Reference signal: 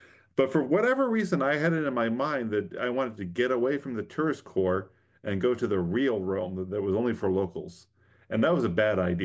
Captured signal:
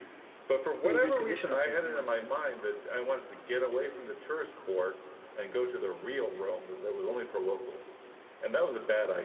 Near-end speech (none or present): present